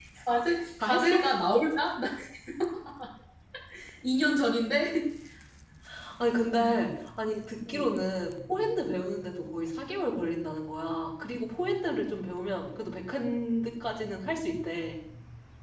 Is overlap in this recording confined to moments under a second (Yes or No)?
Yes